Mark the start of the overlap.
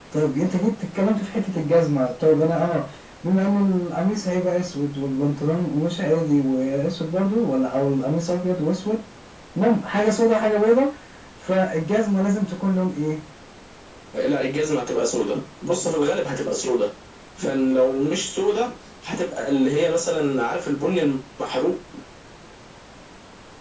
none

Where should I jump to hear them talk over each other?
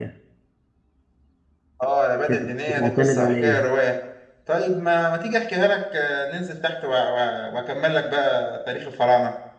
2.3 s

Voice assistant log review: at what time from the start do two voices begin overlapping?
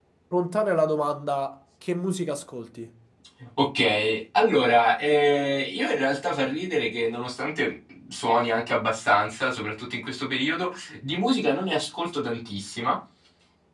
none

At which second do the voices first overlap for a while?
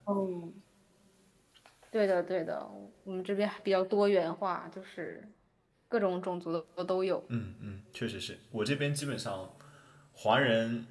none

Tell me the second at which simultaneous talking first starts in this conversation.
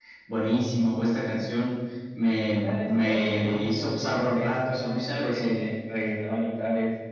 2.6 s

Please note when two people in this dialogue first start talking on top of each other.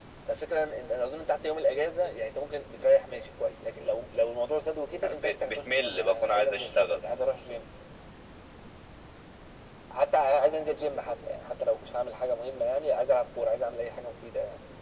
5.0 s

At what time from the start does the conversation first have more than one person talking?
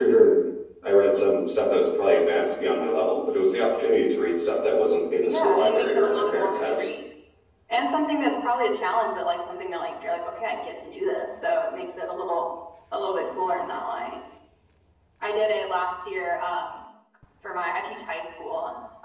5.2 s

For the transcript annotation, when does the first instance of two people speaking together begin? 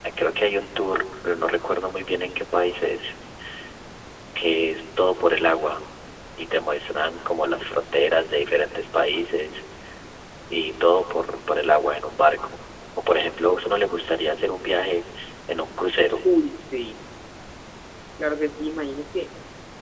none

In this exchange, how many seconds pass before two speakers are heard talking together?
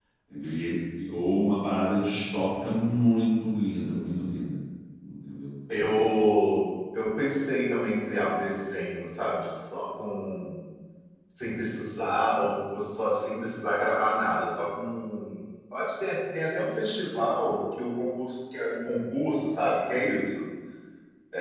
none

